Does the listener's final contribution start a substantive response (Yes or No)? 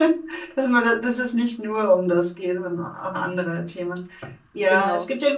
No